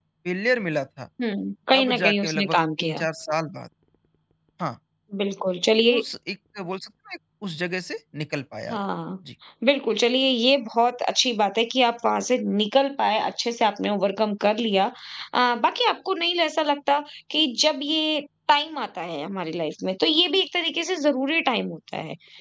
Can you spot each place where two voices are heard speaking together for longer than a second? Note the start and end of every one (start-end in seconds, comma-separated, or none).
1.7-3.0